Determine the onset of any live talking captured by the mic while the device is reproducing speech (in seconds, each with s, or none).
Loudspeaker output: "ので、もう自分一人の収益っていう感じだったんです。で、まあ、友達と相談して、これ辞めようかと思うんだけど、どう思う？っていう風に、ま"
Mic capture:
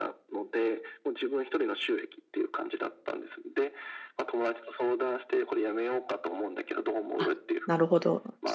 7.2 s